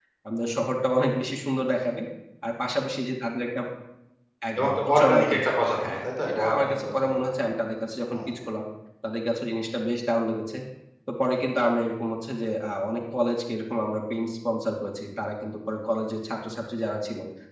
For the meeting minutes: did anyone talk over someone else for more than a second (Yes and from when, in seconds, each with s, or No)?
Yes, from 4.6 s